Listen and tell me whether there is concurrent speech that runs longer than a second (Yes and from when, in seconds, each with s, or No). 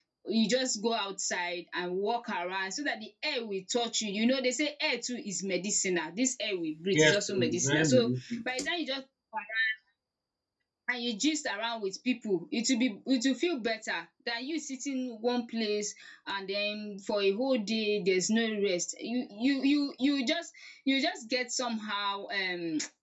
Yes, from 6.9 s